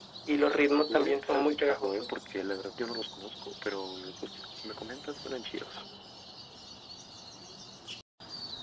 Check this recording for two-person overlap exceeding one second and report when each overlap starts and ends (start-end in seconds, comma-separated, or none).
0.8-2.1